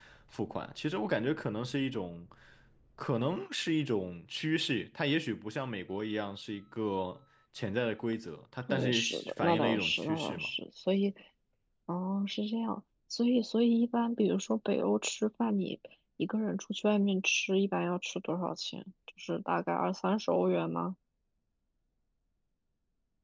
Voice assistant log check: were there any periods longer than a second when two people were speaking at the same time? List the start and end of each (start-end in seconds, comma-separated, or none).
8.7-10.5